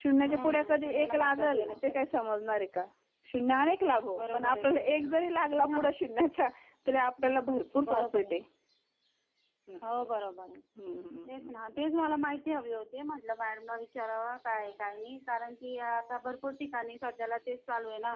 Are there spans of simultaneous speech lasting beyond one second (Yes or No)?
Yes